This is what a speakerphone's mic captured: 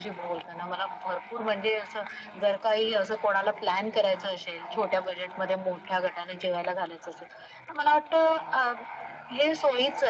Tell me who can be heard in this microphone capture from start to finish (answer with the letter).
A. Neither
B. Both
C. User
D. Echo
D